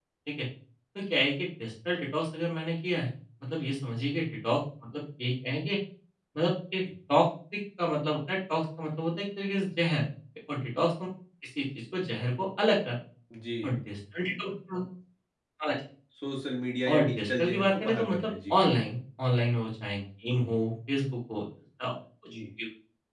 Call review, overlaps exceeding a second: present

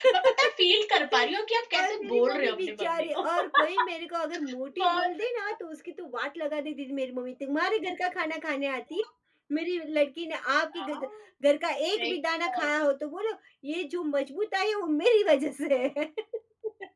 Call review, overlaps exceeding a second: present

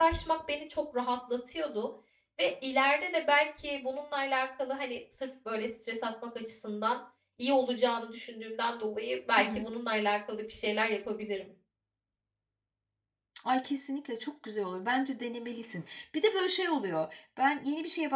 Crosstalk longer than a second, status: none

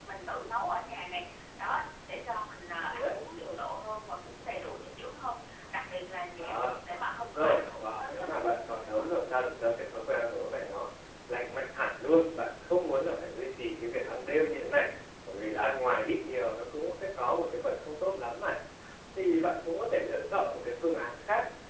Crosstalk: present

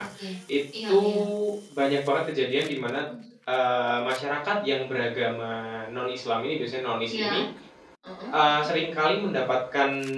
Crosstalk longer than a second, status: none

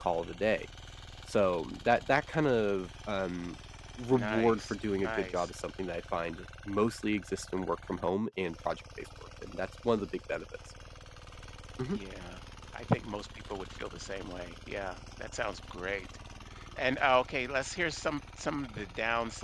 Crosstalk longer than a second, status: present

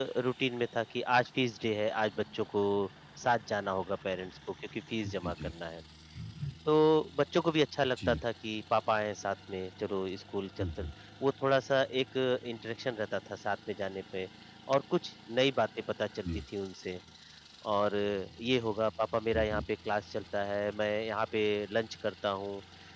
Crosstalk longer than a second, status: none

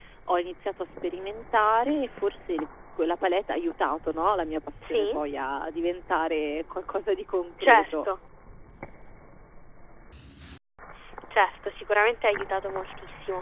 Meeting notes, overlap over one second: none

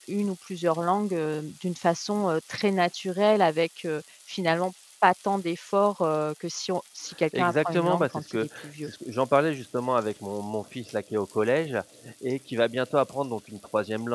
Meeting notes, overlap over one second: present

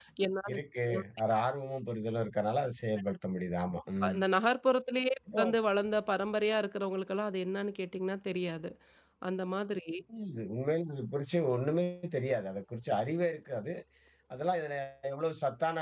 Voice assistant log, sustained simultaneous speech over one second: none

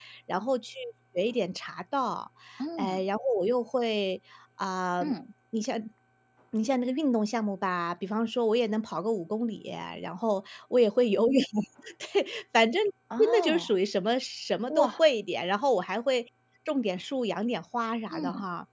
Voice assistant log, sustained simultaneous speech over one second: none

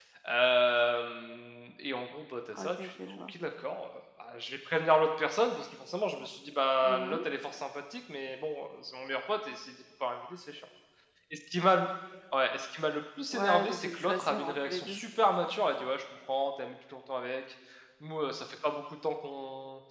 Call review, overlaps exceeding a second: present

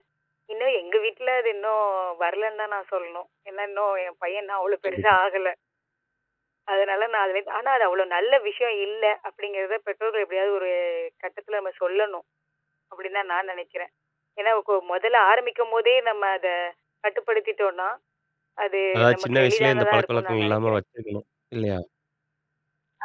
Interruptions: present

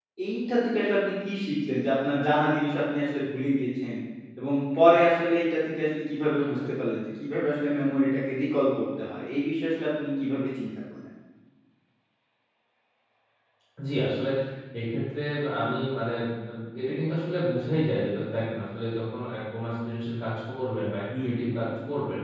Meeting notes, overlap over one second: none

